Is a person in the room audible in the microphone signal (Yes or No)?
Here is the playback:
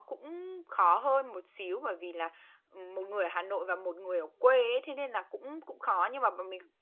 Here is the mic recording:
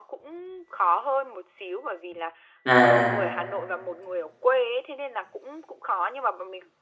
Yes